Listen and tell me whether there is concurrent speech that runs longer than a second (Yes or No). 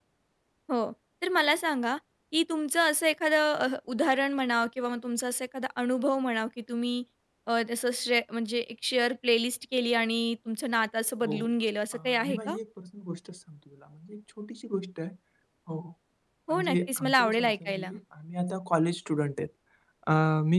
Yes